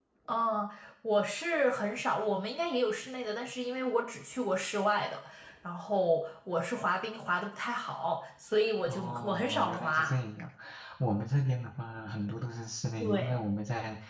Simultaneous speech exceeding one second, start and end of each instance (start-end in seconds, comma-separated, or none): 8.8-10.2